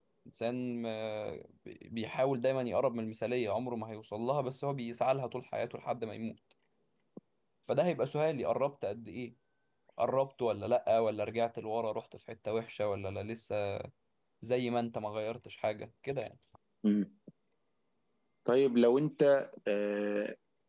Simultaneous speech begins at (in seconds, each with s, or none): none